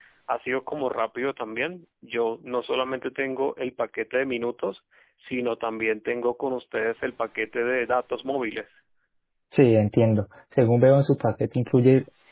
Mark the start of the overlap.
none

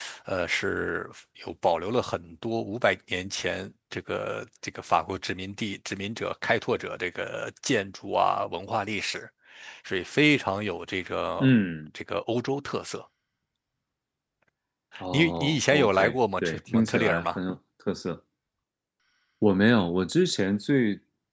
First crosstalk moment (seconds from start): 15 s

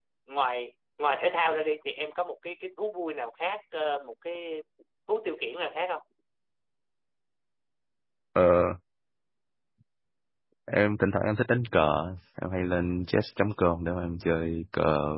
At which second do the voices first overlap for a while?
none

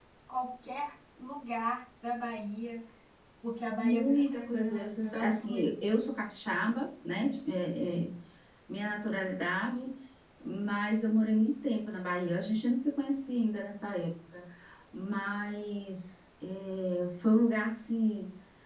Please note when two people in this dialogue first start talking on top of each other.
4 s

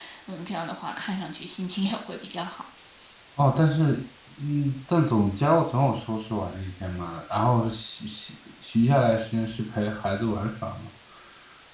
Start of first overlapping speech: none

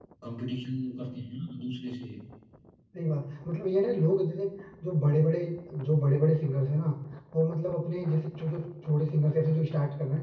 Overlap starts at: none

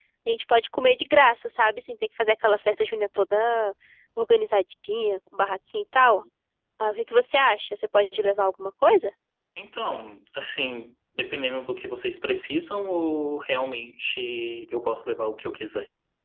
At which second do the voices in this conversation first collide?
none

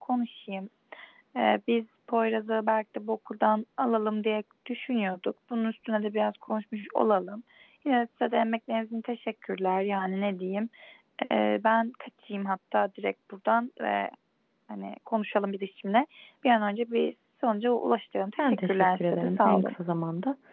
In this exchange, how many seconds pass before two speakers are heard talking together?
18 s

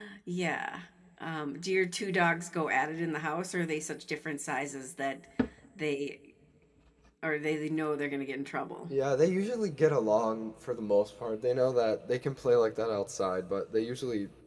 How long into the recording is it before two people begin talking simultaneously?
none

